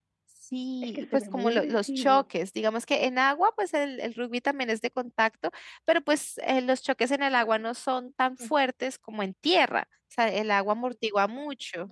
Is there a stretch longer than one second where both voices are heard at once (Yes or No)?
Yes